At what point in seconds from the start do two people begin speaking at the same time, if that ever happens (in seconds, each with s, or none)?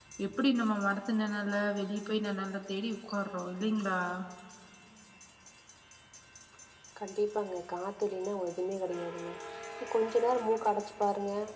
none